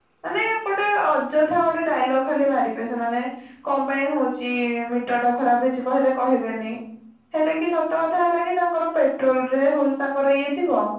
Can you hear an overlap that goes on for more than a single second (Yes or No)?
No